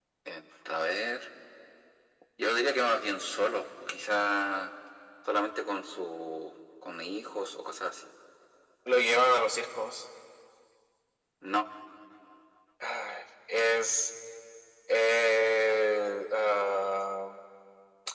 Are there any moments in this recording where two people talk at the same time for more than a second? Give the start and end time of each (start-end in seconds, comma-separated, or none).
none